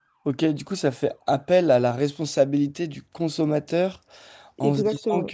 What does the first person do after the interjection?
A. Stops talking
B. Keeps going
B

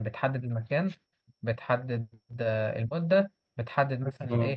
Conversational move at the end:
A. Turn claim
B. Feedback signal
B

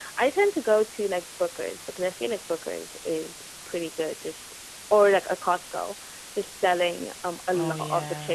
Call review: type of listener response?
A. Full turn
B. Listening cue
B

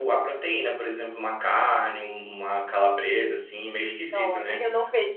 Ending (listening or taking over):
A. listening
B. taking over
B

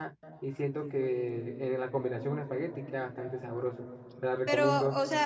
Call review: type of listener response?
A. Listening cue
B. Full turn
B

